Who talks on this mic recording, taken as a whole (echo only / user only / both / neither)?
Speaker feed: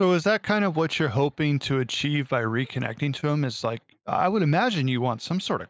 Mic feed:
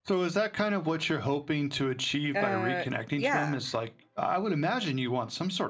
both